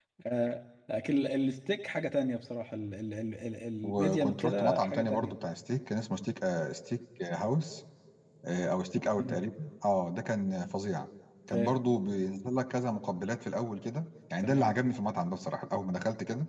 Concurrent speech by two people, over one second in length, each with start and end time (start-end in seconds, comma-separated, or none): 3.8-5.3